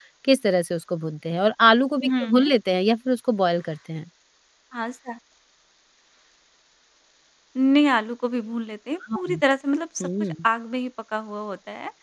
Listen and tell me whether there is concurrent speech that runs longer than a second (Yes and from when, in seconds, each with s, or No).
No